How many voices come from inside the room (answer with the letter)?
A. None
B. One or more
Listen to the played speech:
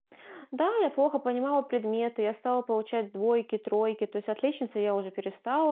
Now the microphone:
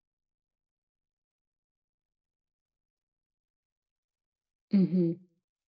B